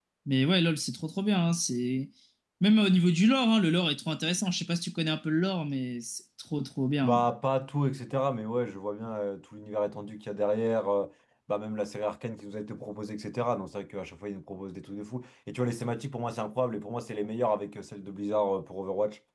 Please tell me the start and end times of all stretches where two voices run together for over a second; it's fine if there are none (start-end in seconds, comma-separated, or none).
none